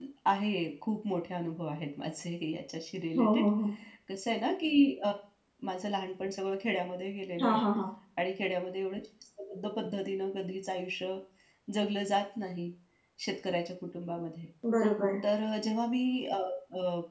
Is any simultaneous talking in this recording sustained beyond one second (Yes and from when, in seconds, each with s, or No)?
No